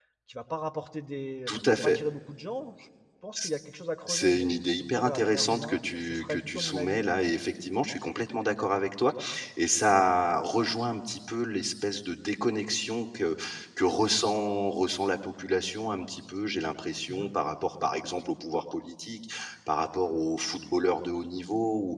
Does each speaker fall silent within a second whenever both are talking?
No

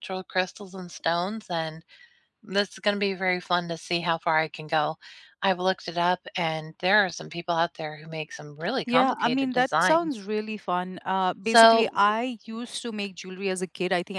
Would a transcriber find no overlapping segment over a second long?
No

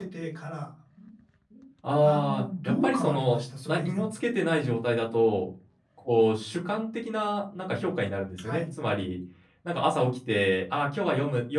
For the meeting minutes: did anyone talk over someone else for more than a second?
Yes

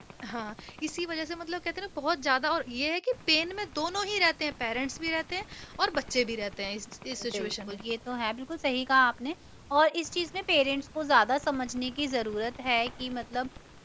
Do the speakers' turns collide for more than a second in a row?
No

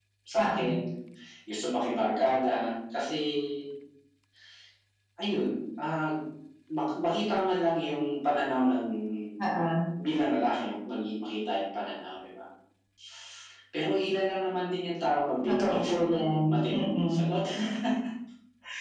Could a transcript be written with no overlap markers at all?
No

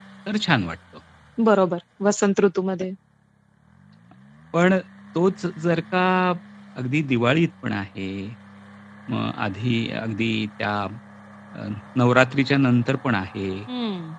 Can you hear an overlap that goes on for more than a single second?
No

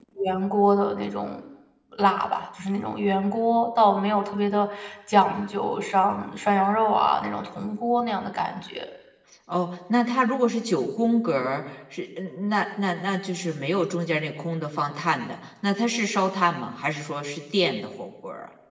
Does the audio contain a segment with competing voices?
No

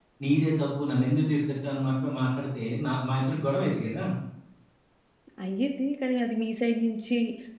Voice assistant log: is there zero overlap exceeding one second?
Yes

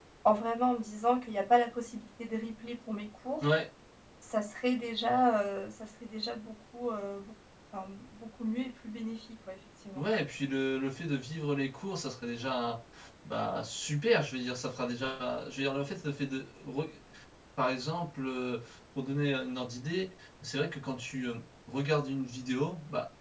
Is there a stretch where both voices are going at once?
No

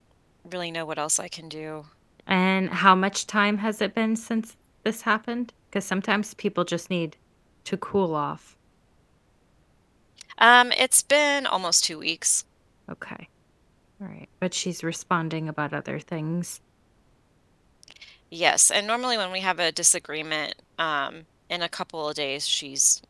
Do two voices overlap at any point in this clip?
No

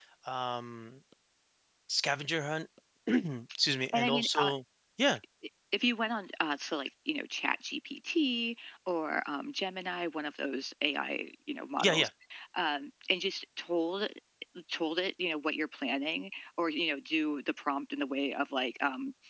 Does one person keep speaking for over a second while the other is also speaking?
No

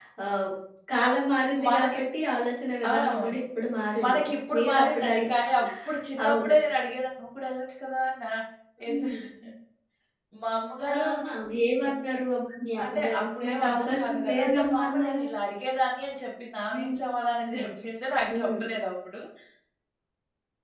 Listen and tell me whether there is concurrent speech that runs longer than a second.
Yes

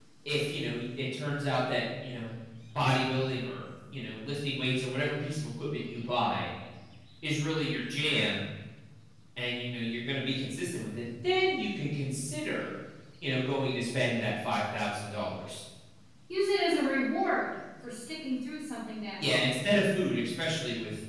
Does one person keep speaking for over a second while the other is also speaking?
No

